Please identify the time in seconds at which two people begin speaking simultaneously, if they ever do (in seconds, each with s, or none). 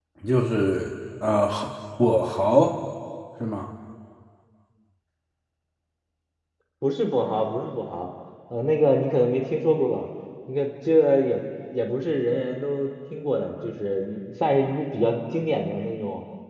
none